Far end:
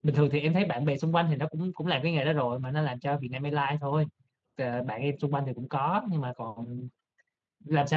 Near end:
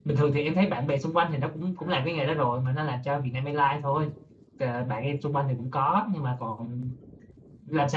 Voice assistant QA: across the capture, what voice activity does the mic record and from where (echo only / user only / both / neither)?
echo only